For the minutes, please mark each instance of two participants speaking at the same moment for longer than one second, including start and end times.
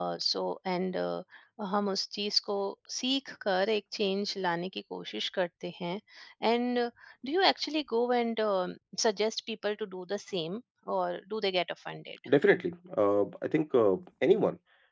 none

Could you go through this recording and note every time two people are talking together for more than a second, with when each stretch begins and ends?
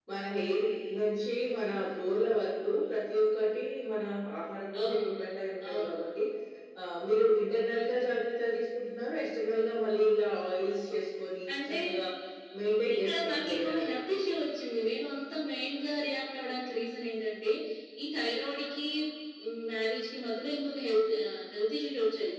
12.9-14.2

